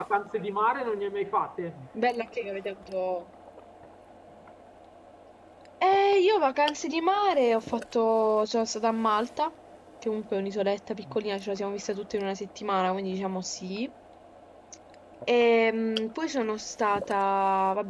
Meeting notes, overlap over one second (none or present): none